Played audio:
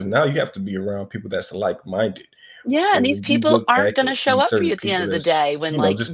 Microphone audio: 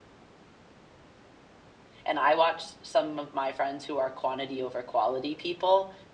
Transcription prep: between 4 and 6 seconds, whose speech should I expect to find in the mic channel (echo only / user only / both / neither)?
user only